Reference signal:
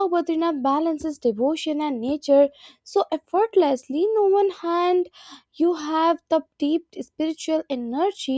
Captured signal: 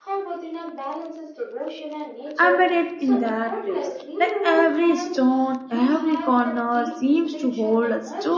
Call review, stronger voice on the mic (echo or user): user